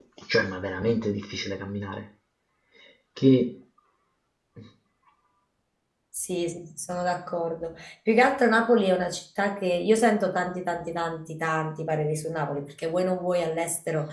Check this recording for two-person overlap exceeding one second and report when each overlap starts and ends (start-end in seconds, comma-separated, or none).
none